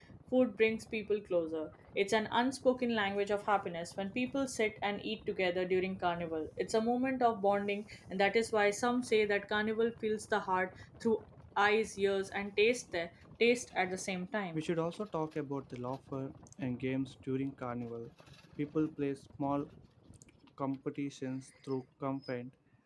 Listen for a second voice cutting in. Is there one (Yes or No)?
No